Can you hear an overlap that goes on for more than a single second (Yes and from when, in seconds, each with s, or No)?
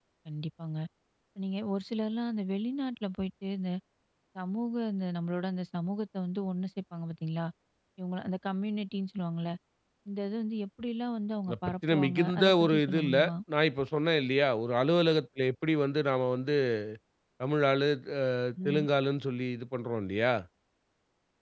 Yes, from 11.5 s